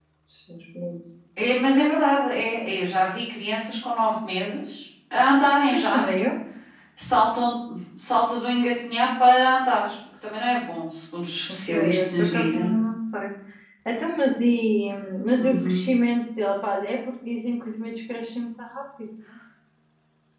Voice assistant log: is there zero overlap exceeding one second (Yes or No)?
No